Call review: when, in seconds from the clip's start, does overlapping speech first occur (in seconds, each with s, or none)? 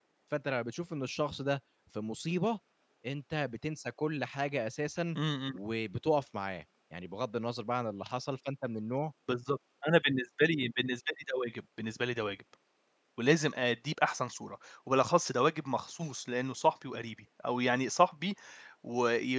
none